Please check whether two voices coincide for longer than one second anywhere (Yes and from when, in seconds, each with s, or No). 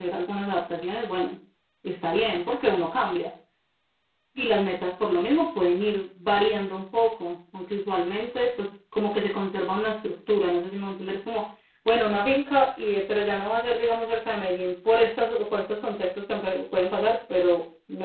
No